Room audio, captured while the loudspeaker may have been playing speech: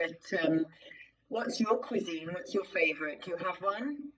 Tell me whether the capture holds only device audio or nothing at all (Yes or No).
Yes